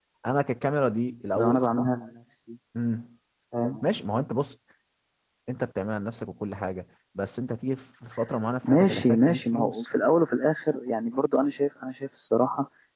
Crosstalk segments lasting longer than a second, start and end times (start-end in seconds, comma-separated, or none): 8.6-9.9